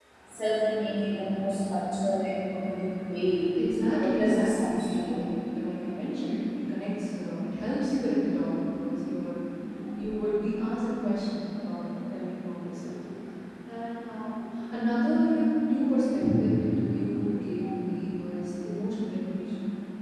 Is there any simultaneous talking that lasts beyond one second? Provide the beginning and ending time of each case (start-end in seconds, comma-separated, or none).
4.0-5.2